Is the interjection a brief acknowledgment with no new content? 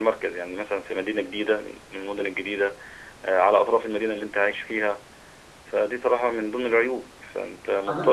Yes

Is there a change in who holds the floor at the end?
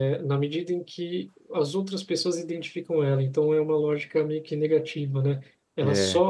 No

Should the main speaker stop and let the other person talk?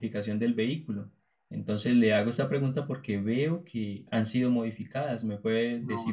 Yes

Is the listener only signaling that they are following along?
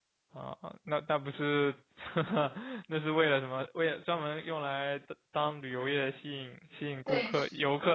Yes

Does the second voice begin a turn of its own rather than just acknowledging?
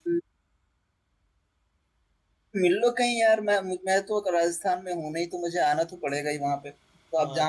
Yes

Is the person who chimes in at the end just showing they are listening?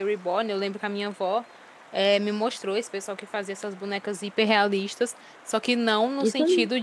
Yes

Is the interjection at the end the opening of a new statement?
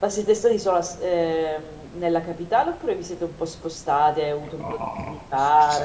Yes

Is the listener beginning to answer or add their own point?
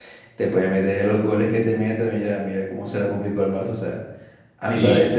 No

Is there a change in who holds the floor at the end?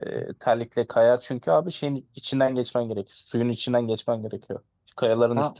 No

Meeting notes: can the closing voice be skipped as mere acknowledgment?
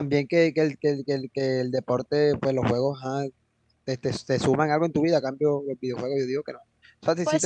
Yes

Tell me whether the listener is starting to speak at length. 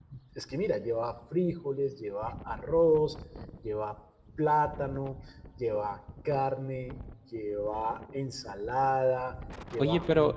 Yes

